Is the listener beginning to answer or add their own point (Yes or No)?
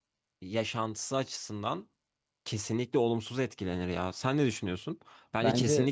No